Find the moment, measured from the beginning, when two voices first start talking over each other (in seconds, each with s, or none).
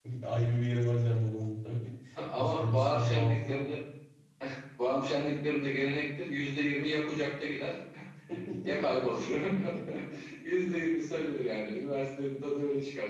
2.4 s